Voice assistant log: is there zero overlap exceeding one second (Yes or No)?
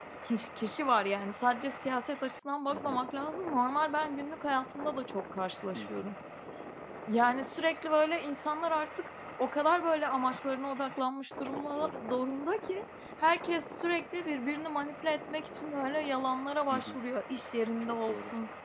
Yes